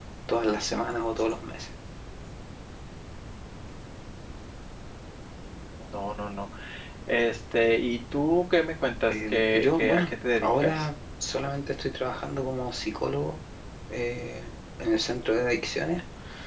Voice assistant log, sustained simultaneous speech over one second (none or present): present